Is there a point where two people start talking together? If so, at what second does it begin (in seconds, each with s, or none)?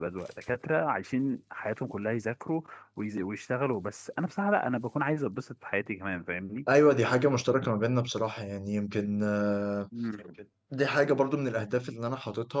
none